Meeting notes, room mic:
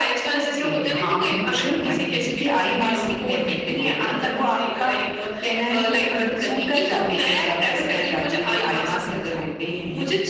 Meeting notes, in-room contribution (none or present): none